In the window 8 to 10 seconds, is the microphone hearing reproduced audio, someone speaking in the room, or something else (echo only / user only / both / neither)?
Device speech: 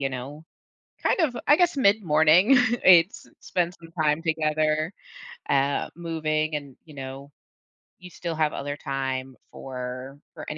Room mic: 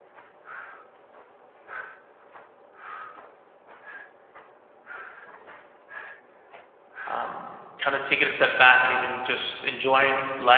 user only